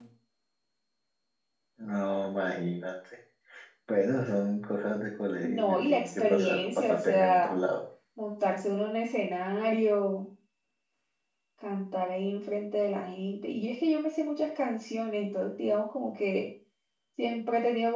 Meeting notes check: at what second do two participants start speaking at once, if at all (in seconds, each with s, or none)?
5.4 s